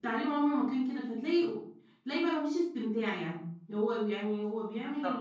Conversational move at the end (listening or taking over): listening